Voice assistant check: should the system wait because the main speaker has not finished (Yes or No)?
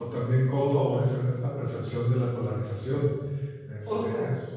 Yes